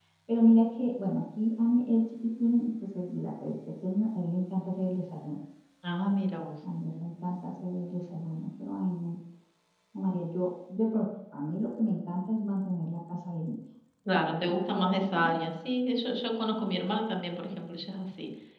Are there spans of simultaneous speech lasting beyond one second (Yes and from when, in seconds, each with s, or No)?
Yes, from 14.1 s